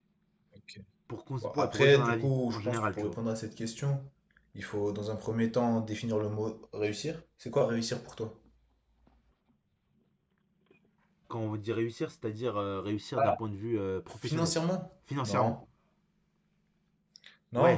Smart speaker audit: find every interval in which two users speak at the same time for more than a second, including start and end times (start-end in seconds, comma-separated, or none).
1.4-3.2